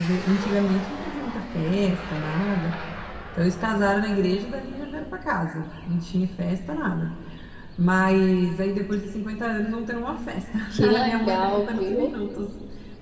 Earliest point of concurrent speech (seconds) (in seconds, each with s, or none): 10.7 s